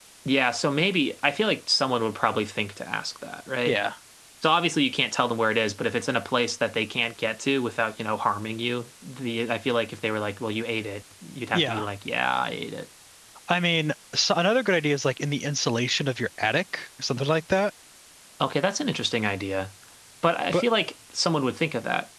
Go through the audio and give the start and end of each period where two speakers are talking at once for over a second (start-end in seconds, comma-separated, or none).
none